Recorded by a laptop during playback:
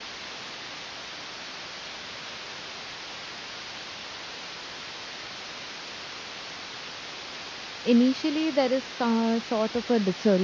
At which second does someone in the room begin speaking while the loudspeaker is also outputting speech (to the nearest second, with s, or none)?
8 s